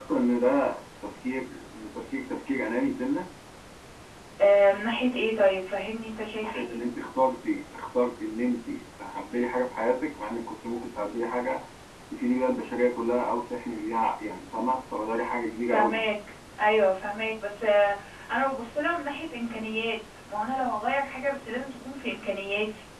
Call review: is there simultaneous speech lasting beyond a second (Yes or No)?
No